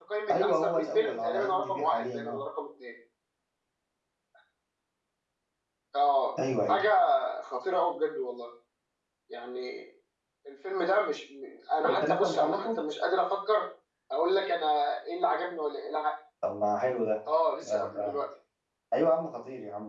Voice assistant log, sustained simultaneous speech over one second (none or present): present